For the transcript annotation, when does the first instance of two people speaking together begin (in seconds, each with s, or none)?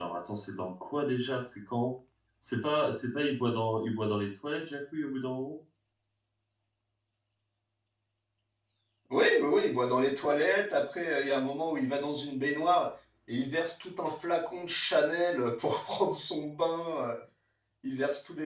none